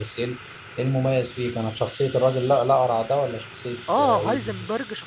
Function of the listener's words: taking over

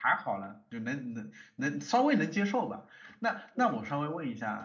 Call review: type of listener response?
listening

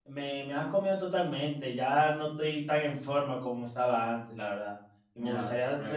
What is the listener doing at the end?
taking over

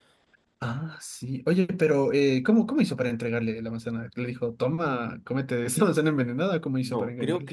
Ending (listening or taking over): taking over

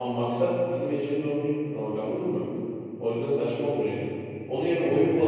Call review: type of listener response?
listening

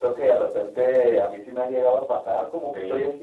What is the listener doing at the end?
listening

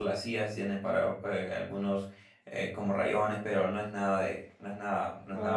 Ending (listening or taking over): taking over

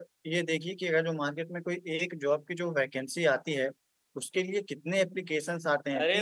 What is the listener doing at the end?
taking over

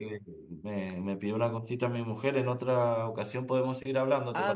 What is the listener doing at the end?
taking over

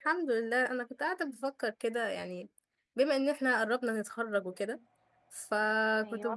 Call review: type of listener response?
listening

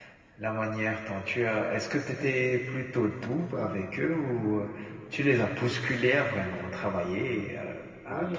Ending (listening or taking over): taking over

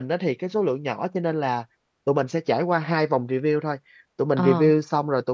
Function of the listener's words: listening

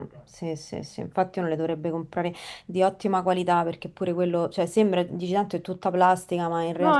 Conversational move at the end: taking over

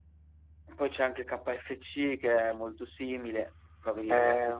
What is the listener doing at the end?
taking over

